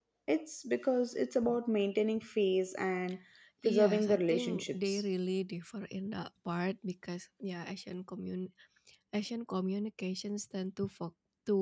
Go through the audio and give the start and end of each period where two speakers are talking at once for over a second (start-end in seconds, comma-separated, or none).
3.6-5.0